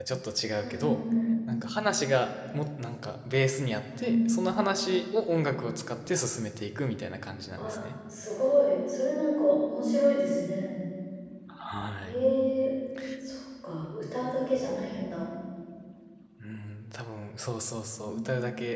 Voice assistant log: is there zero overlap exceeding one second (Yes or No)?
Yes